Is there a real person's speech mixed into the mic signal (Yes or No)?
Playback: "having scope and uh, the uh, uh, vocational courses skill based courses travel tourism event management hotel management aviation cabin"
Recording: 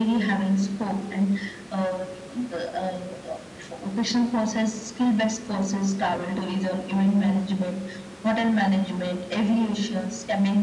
No